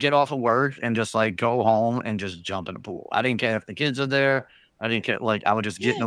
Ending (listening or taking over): taking over